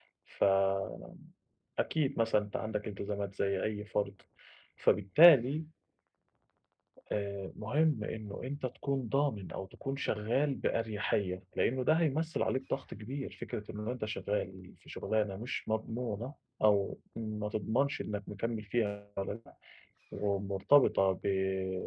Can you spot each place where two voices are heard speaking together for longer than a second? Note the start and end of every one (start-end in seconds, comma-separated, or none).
none